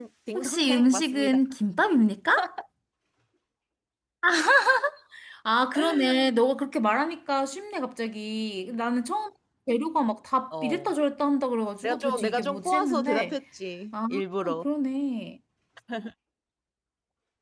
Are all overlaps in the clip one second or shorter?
No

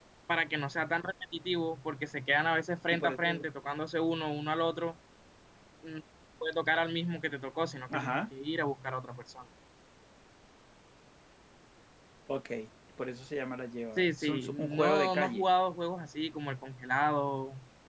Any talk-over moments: Yes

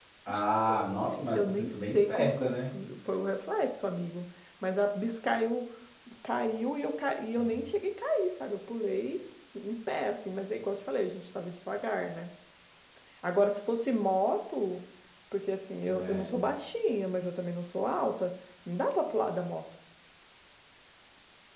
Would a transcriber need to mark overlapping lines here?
Yes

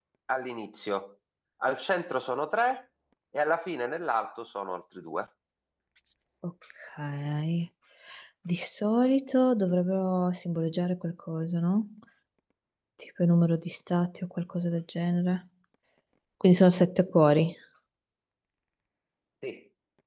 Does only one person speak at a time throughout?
Yes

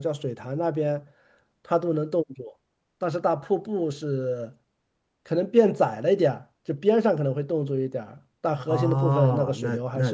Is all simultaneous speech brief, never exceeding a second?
No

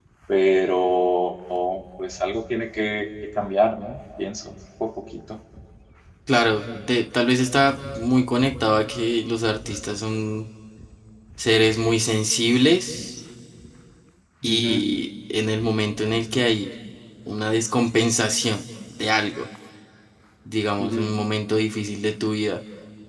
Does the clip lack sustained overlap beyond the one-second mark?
Yes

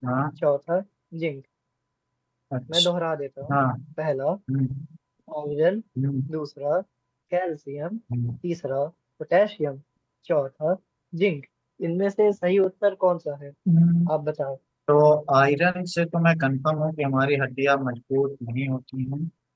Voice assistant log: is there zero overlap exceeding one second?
Yes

